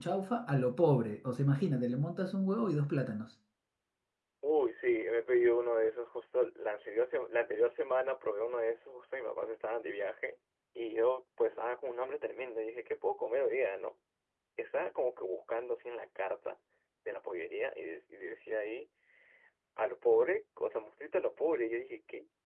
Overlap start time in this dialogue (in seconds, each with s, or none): none